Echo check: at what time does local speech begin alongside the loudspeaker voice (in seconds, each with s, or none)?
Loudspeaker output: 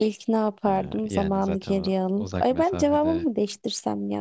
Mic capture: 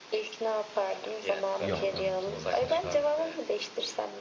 1.6 s